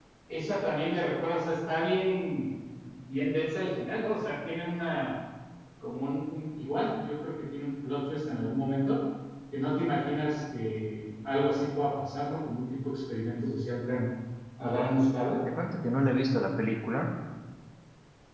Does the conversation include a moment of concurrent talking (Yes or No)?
No